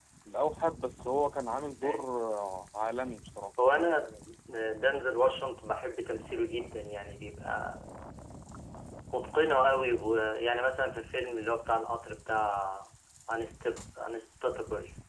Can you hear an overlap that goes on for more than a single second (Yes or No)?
No